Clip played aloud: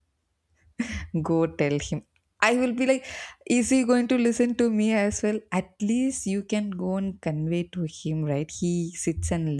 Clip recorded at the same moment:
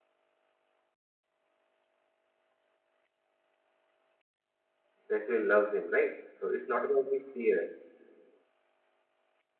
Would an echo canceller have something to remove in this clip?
No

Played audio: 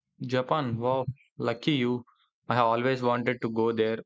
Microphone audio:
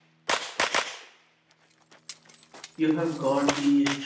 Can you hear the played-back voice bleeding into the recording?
No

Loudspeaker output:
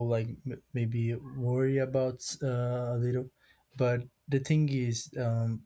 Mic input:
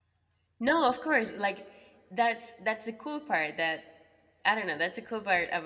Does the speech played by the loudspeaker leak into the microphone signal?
No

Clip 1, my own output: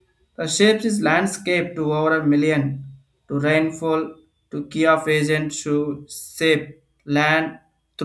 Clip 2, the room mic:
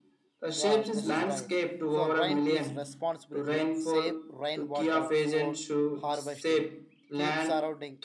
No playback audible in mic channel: No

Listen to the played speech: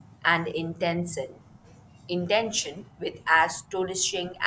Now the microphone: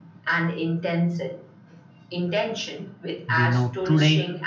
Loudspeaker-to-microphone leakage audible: Yes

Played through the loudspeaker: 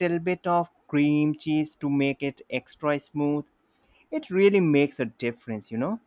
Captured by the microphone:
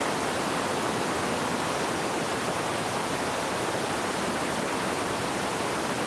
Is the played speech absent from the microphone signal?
Yes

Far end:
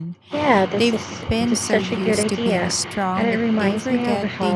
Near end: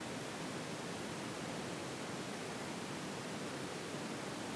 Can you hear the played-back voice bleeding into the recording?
No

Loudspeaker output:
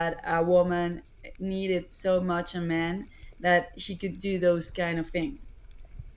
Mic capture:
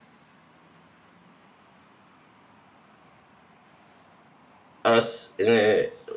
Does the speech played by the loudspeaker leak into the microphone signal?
No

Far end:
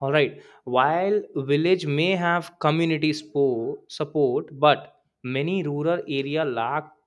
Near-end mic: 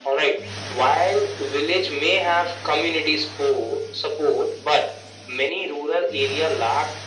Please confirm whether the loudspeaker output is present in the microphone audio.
Yes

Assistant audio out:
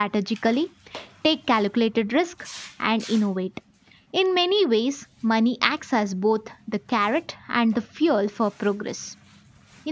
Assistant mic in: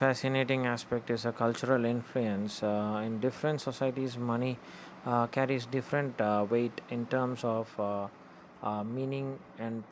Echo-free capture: Yes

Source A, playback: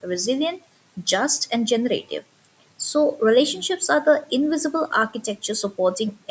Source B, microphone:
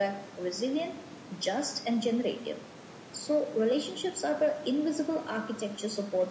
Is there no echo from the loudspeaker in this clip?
No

